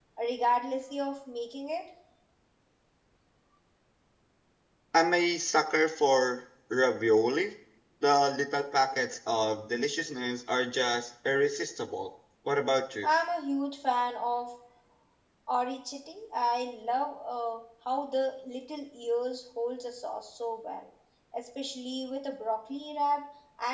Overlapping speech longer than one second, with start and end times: none

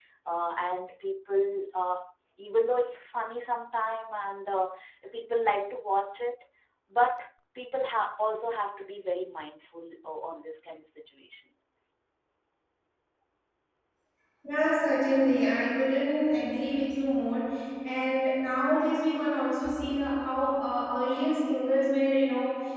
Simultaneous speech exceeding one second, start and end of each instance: none

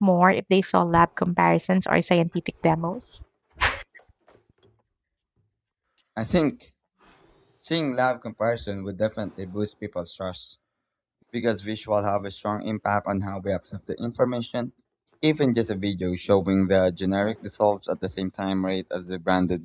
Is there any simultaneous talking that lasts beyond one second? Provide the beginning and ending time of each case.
none

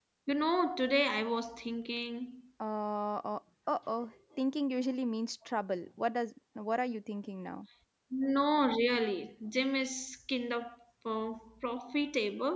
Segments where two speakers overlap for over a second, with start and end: none

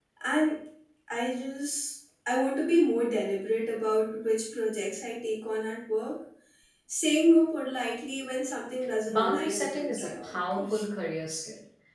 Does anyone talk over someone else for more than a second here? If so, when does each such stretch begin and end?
9.1-10.8

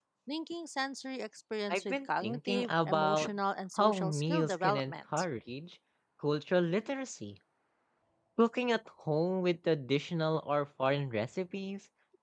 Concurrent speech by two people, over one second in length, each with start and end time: 1.7-3.3, 3.8-5.2

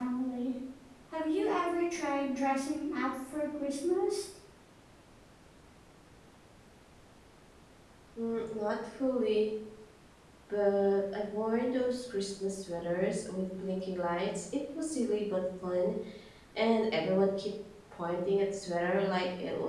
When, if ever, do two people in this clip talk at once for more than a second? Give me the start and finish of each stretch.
none

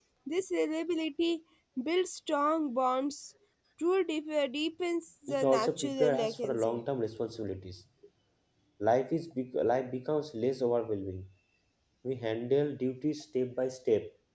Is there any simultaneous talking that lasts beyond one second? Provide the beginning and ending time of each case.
5.3-6.8

